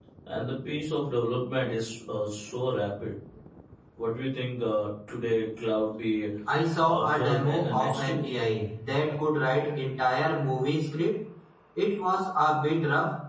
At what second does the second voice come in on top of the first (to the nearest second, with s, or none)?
7 s